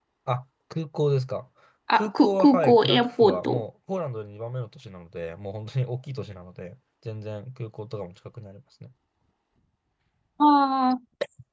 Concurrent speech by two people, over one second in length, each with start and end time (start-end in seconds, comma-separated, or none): 1.9-3.6